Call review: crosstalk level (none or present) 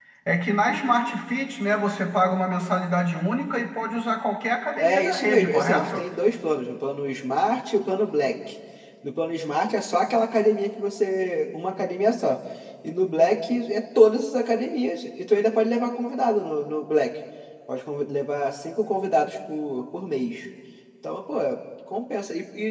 present